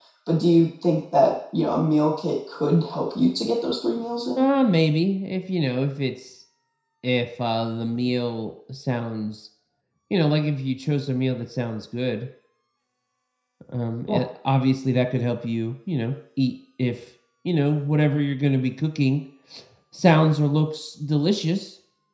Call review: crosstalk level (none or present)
none